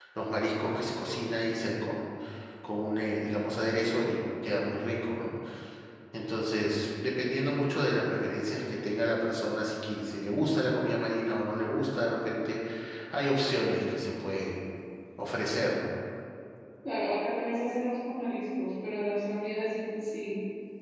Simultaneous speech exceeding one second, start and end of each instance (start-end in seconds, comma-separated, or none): none